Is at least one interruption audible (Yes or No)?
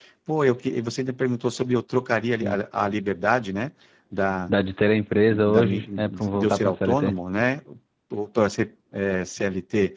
Yes